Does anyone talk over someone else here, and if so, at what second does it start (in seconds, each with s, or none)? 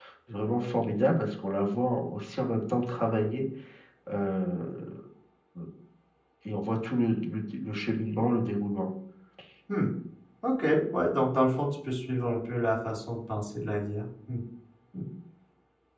none